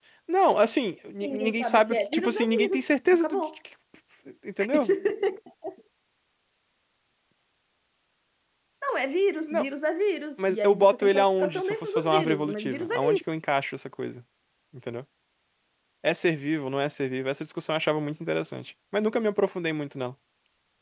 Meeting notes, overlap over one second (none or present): present